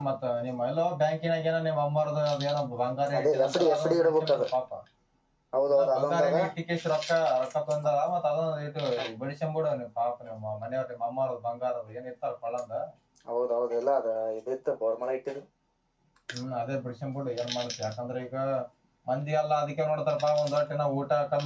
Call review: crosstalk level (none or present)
present